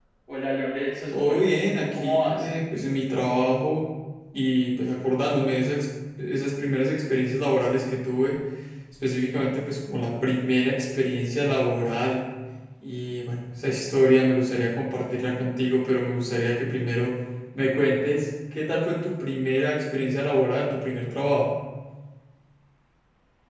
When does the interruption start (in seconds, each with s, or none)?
1.1 s